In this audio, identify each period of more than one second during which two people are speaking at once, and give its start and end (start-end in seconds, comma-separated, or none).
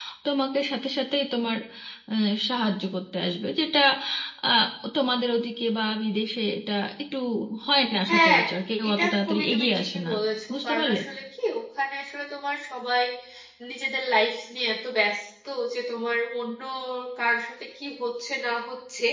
8.9-10.1